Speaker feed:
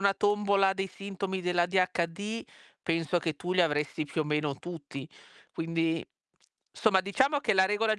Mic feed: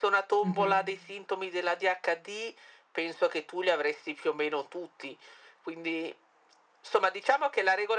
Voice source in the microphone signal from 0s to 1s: both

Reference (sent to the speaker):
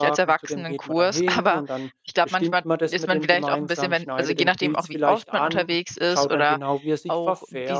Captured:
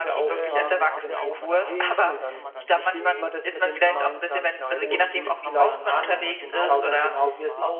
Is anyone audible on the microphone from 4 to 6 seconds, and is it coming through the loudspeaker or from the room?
both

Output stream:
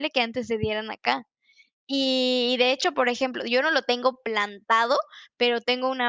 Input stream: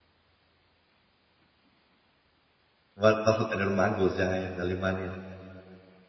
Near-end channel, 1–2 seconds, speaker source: neither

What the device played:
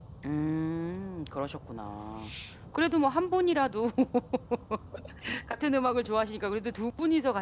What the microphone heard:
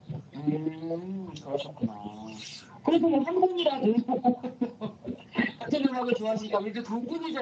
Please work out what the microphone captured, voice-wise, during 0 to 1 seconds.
echo only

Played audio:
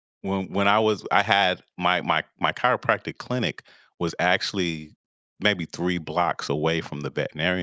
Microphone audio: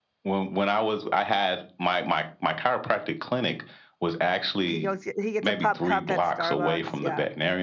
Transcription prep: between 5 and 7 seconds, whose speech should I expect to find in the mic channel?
both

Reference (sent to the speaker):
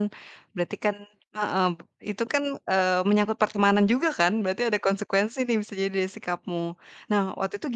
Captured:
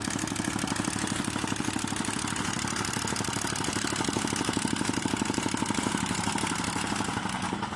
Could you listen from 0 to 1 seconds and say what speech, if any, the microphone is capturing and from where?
neither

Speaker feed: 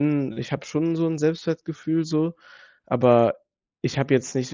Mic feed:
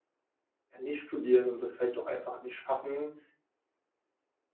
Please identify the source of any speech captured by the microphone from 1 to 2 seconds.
user only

